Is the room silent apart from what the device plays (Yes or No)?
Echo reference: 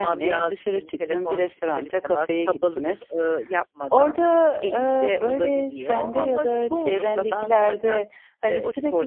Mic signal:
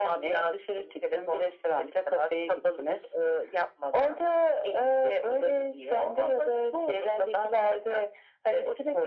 Yes